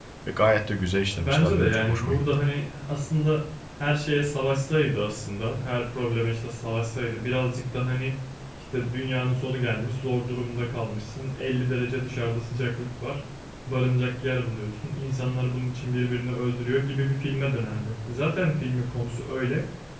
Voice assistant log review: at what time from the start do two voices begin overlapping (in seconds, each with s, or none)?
1.2 s